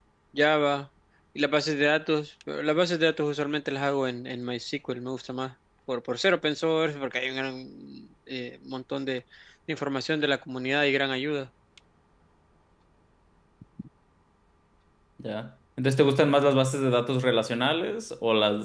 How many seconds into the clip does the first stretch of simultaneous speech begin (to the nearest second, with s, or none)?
none